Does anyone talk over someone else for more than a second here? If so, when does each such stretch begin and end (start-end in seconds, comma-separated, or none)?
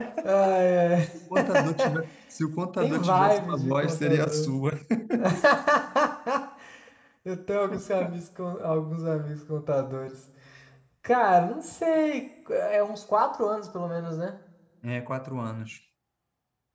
2.8-4.5